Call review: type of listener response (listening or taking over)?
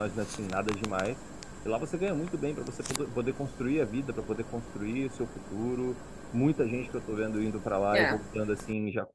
listening